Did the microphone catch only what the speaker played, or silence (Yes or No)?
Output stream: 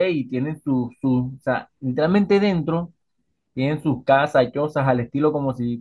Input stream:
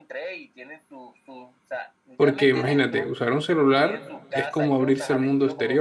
No